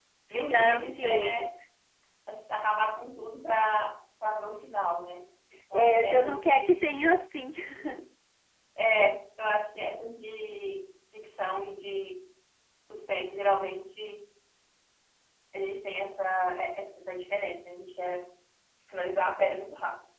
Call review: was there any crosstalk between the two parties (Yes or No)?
Yes